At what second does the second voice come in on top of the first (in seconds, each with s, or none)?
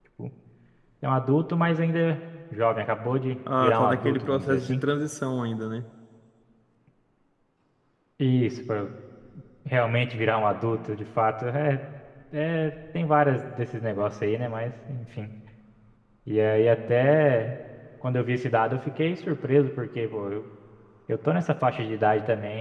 3.5 s